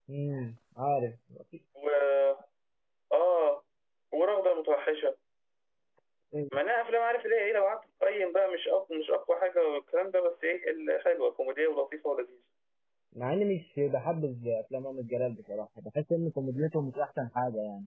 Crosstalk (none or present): none